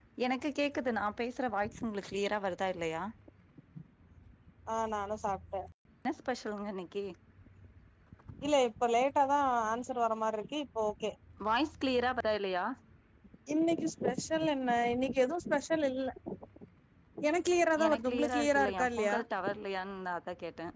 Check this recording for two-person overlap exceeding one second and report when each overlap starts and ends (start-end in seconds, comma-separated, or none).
17.8-19.2